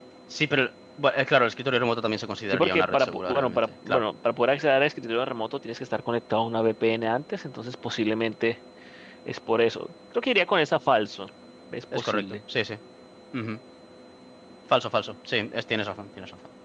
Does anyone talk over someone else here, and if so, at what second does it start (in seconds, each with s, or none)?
2.5 s